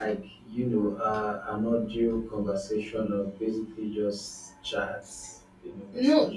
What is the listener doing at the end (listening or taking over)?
taking over